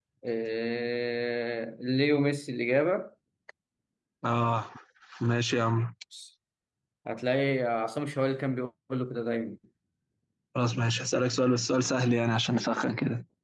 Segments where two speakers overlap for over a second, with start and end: none

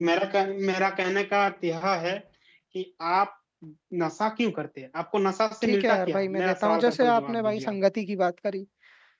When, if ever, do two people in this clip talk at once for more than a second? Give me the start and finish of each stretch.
5.6-7.8

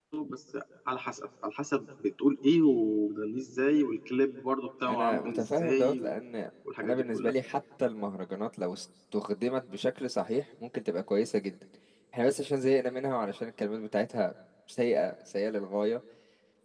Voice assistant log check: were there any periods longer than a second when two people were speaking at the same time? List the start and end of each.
4.9-6.1

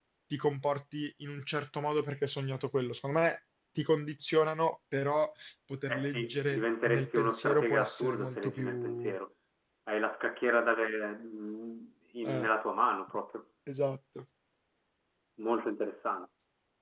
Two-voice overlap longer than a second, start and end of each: 5.9-9.2

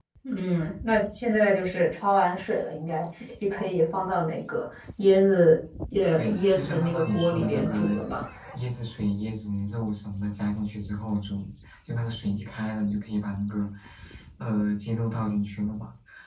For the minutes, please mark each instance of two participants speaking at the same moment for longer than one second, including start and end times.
6.1-7.9

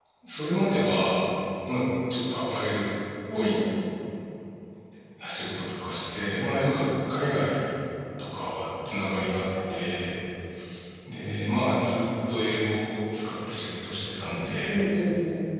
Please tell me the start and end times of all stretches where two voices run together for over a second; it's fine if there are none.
none

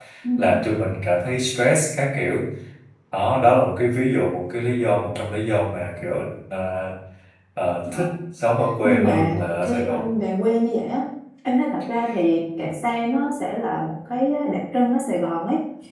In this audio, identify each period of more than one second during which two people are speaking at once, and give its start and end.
8.8-10.1

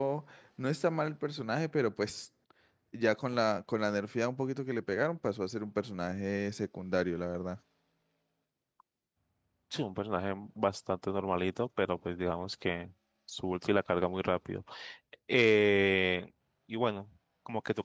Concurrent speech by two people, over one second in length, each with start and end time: none

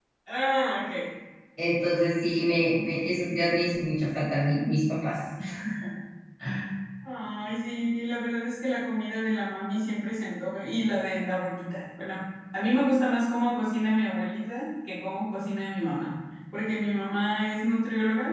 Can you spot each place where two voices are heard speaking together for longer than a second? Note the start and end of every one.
none

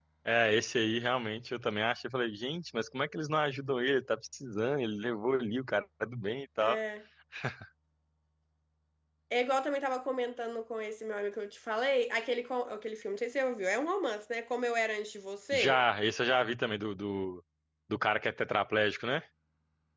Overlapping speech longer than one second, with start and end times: none

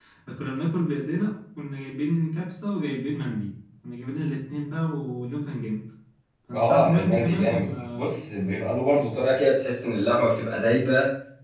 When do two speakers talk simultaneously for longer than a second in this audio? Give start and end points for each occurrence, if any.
6.5-8.1

